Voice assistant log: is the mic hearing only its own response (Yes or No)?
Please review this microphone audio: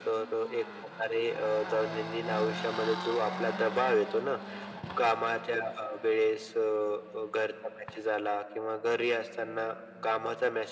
Yes